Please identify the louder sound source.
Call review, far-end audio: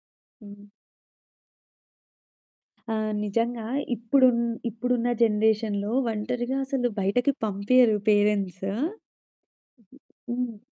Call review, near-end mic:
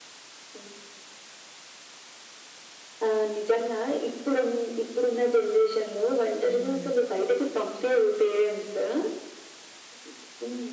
echo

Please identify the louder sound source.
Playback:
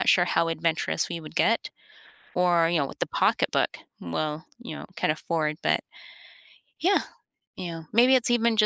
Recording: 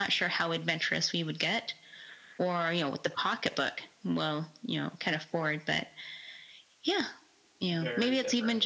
echo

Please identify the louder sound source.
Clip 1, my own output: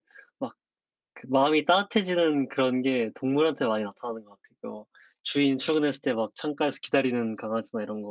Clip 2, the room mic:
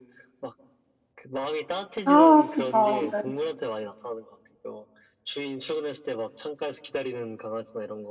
user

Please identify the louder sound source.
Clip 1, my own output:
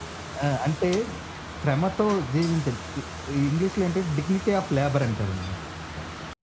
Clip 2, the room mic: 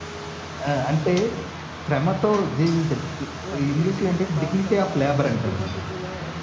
echo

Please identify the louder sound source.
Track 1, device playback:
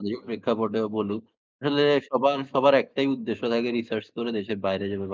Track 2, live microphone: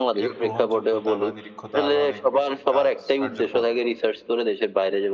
echo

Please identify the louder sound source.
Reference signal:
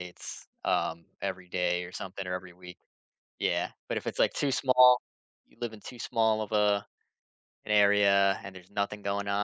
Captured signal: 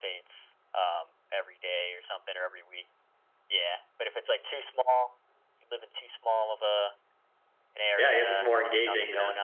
user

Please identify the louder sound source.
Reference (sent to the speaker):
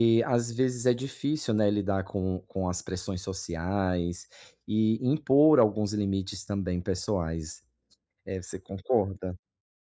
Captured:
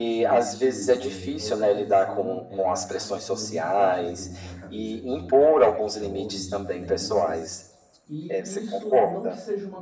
echo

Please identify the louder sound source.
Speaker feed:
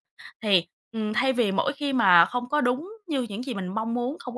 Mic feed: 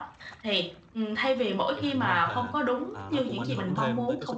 echo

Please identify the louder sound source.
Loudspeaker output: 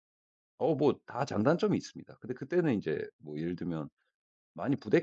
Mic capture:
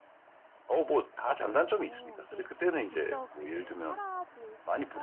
echo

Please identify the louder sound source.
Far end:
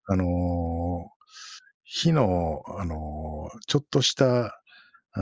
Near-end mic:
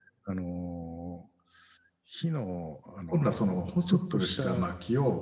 user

